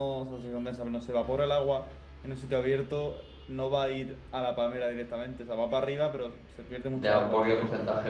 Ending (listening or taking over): taking over